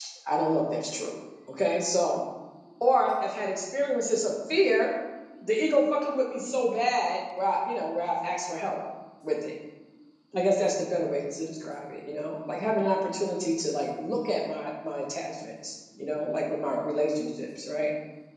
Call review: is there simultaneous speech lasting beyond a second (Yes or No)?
No